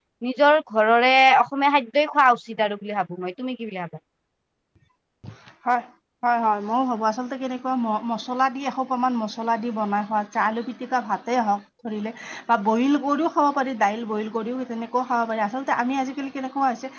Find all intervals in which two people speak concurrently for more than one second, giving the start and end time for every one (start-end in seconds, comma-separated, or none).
none